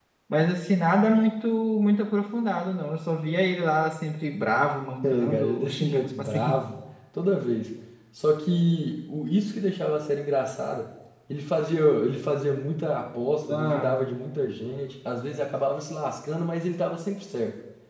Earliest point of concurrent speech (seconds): 5.0 s

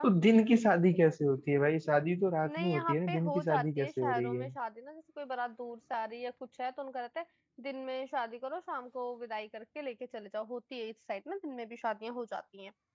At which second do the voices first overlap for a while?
2.5 s

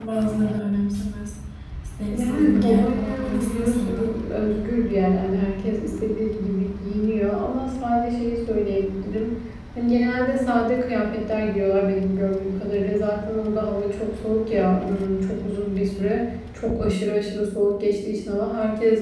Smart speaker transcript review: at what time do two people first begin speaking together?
2.1 s

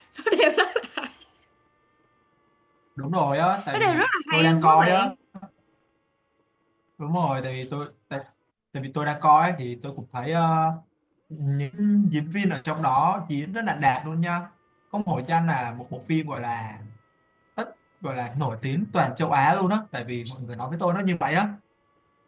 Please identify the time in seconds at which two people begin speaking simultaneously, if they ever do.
3.7 s

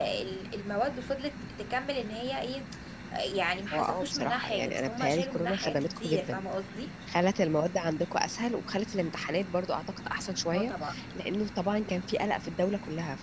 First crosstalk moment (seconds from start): 3.7 s

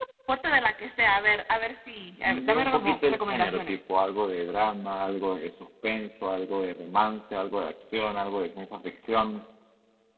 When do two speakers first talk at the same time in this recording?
2.2 s

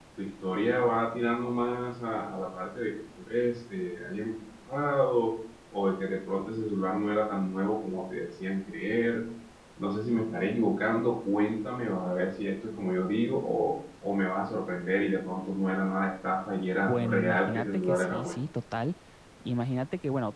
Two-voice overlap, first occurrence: 16.8 s

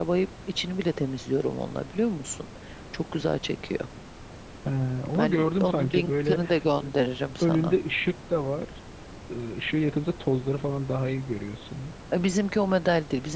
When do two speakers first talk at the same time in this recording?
5.2 s

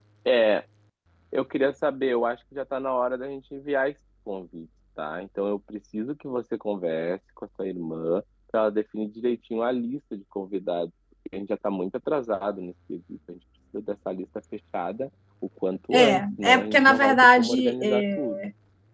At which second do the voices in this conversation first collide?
15.9 s

